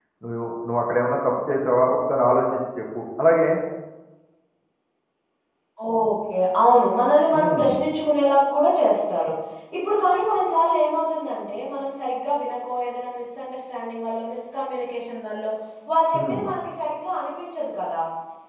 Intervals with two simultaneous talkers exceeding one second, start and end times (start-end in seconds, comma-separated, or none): none